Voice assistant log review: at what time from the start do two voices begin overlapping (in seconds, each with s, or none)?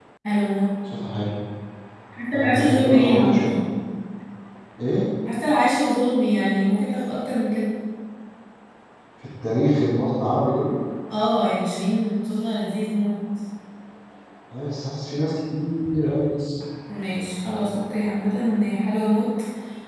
2.3 s